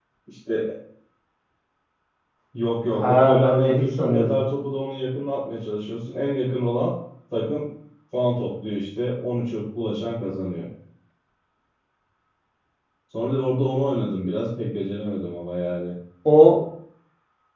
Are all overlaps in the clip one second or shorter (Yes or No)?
No